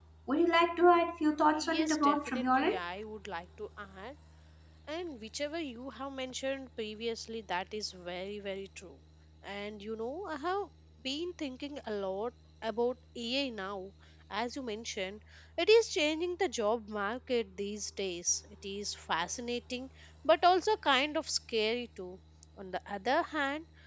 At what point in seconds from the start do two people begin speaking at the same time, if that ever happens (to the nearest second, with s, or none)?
2 s